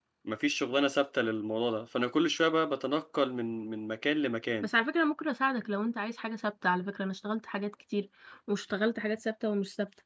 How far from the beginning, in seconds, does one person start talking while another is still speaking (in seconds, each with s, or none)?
none